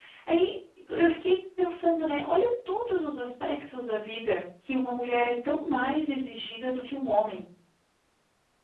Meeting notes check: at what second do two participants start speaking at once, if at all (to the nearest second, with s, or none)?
none